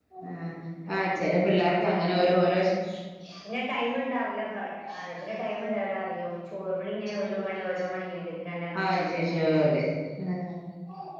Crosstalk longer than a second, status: none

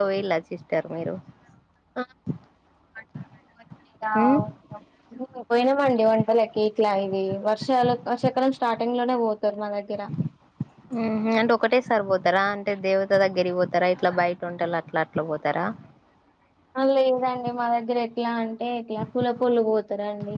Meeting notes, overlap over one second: none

